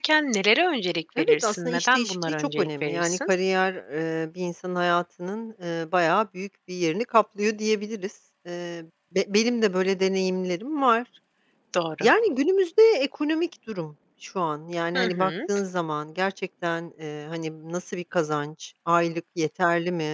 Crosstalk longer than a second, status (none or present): present